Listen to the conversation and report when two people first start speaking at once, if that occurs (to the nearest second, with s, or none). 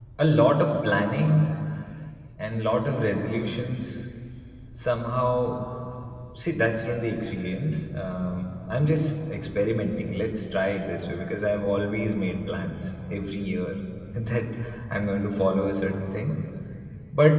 none